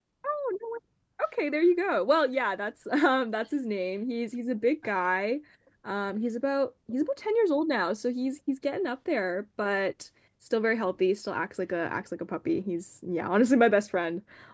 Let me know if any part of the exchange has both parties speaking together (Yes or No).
No